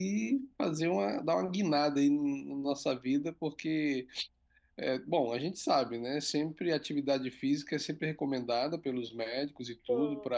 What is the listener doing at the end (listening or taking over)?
listening